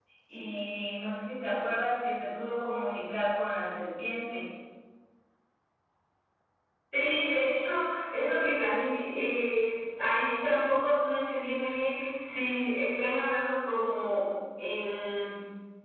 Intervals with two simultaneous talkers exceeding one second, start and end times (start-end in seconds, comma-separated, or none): none